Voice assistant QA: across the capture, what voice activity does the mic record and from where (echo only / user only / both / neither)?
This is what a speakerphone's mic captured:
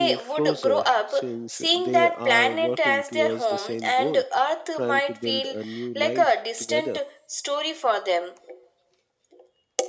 both